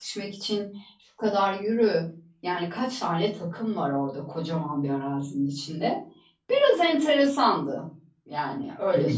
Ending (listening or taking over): taking over